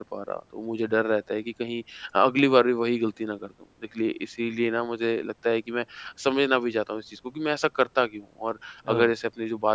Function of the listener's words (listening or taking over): listening